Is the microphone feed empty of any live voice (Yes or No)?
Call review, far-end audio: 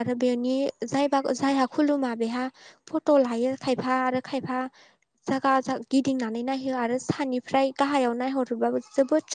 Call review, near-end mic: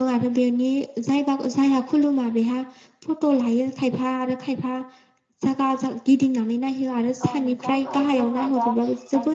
No